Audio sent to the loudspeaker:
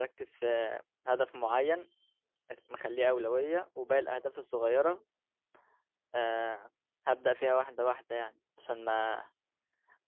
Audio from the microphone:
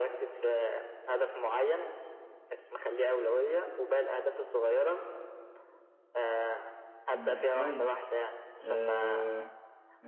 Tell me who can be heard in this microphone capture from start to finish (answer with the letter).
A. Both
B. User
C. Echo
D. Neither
A